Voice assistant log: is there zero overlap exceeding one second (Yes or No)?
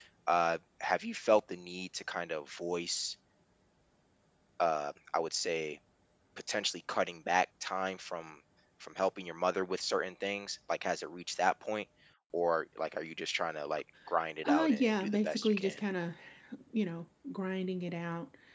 No